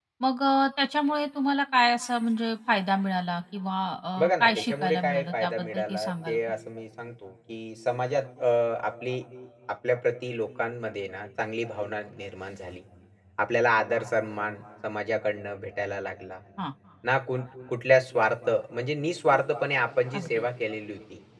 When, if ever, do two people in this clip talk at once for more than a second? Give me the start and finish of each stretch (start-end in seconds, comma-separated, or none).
4.2-6.4